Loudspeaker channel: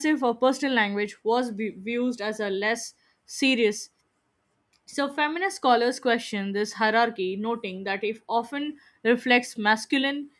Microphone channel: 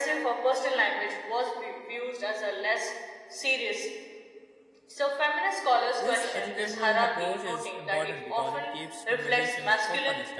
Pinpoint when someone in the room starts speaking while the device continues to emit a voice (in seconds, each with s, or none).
6.0 s